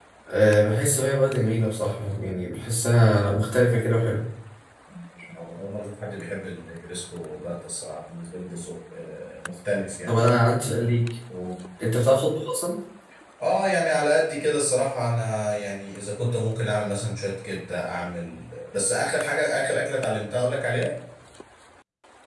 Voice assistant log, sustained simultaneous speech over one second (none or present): none